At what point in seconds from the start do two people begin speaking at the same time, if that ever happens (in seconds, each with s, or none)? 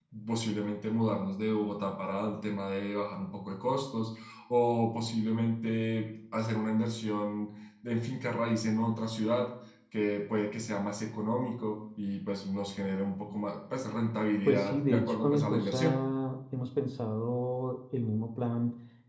14.4 s